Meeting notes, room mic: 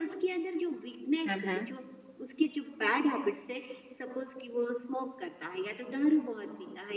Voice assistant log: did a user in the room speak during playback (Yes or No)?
Yes